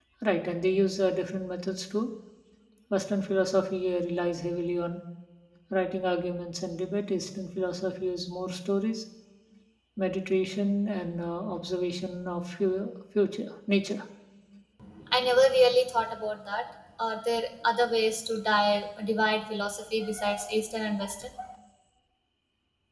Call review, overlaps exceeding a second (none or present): none